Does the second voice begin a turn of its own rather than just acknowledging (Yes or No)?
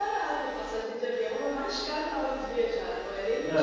No